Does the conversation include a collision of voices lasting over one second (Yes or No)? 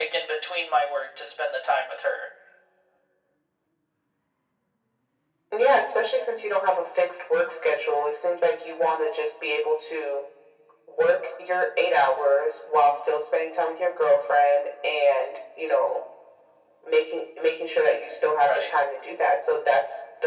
No